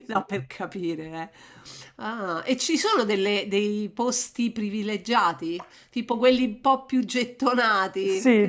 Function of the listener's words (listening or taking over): taking over